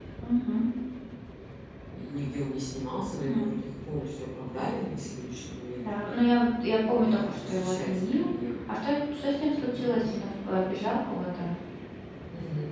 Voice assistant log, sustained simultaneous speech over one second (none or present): present